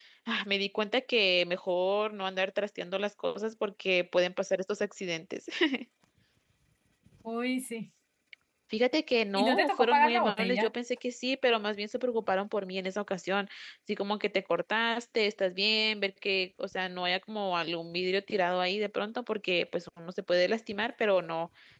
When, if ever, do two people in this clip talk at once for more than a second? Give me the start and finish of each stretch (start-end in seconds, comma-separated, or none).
9.4-10.7